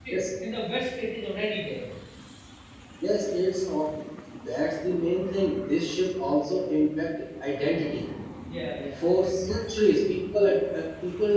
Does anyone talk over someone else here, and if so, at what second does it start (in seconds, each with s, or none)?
none